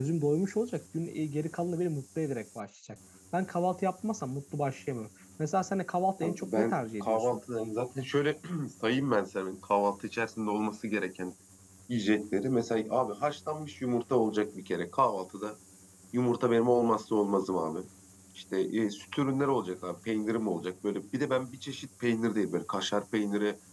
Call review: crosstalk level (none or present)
present